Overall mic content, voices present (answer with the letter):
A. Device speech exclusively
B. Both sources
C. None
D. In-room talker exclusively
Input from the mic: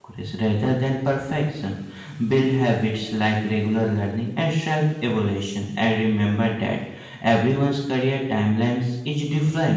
D